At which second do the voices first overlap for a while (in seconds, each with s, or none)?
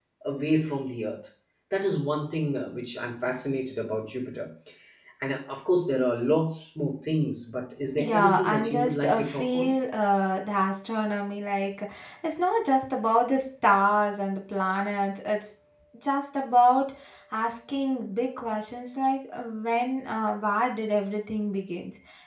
7.8 s